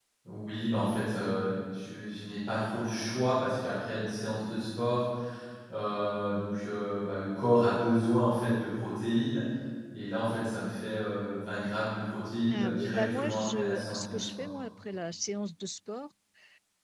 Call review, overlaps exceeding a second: present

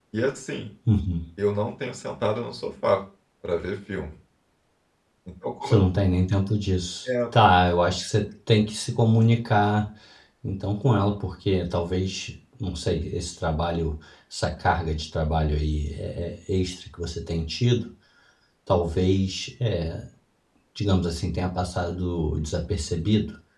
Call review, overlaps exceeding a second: none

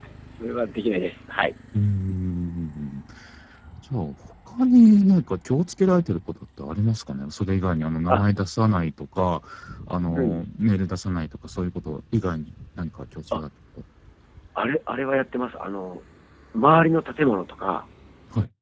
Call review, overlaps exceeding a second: none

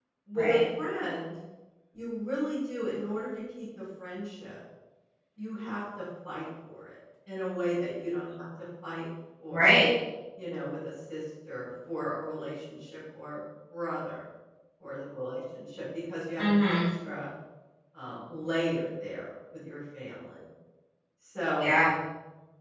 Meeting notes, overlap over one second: none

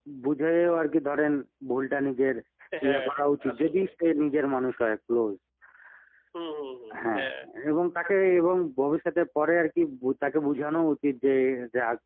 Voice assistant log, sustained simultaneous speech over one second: none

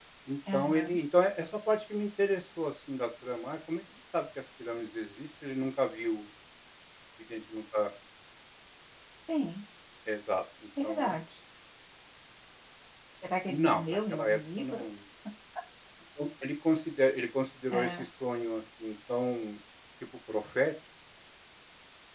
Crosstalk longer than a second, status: present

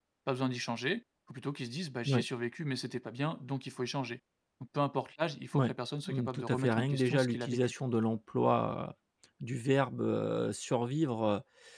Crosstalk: present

